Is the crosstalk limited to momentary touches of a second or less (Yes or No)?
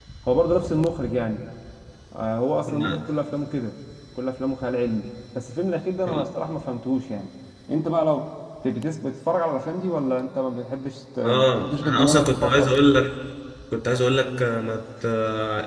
No